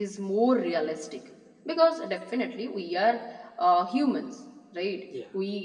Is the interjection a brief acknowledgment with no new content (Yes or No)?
Yes